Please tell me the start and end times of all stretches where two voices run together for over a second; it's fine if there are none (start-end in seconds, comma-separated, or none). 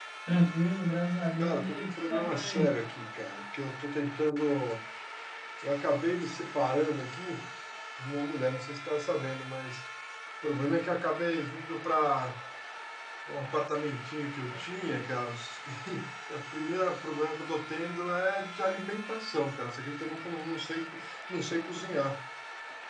1.4-2.8